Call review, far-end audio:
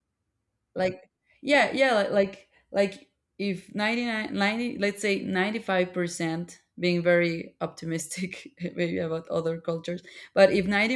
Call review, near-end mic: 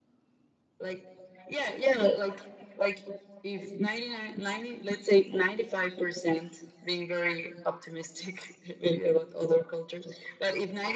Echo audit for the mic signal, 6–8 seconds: echo only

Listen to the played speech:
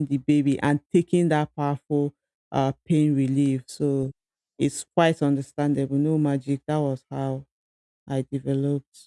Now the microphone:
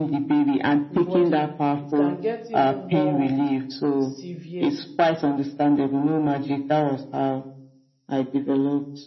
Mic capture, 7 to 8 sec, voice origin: echo only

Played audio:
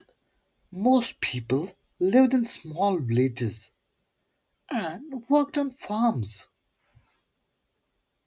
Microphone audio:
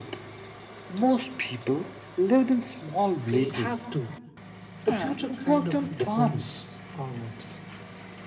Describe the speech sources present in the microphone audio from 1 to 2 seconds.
echo only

